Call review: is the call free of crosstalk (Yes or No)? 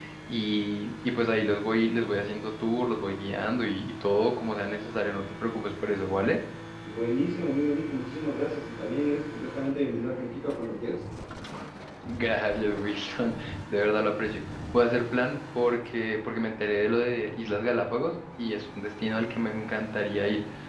Yes